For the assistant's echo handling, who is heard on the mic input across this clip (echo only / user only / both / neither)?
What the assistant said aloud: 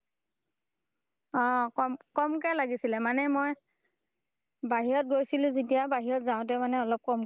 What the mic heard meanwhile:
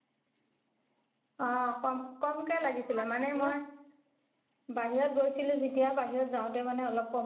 both